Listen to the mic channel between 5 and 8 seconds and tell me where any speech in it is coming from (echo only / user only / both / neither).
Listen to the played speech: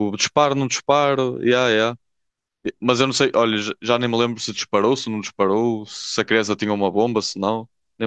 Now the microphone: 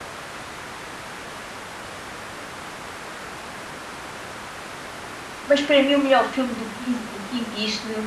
user only